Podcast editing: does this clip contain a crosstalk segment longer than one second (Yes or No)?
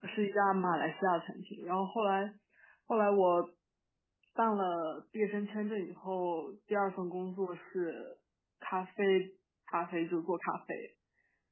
No